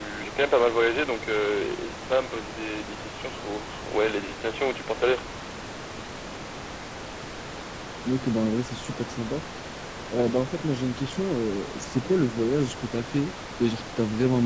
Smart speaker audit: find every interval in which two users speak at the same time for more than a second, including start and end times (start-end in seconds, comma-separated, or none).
none